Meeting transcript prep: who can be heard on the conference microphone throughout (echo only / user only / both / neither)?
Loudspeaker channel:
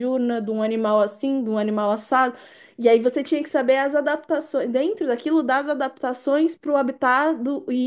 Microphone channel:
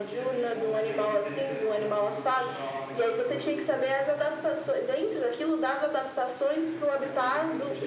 both